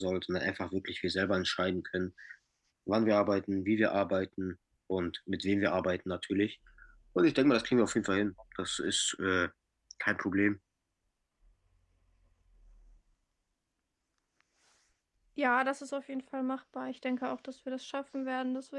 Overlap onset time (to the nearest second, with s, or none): none